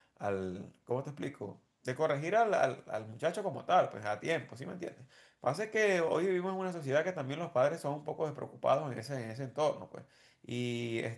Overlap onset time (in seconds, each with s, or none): none